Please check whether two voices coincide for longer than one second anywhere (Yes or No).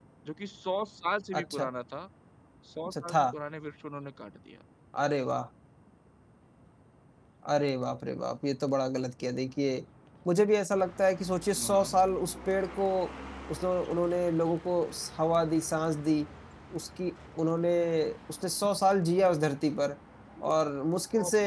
No